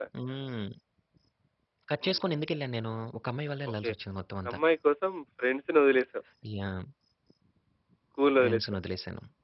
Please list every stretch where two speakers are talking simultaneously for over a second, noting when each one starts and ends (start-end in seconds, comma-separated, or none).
none